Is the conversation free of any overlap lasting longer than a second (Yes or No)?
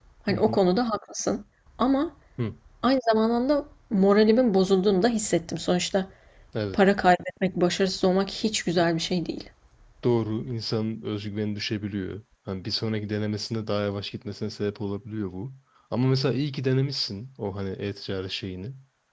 Yes